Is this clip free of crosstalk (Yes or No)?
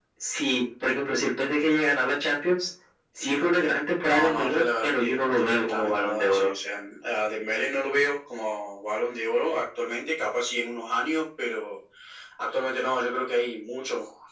No